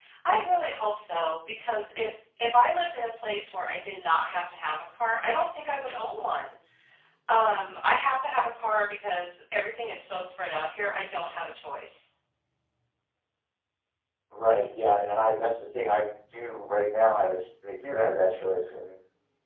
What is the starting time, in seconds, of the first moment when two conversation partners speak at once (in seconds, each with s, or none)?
none